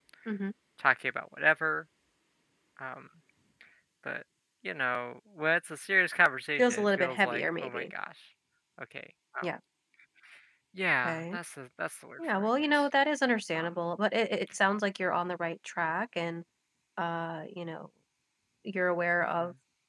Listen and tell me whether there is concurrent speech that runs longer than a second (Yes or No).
Yes